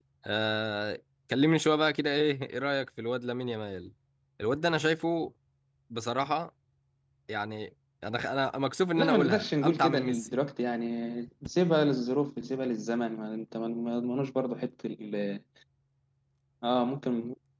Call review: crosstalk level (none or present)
present